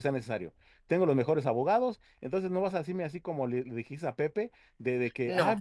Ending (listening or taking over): listening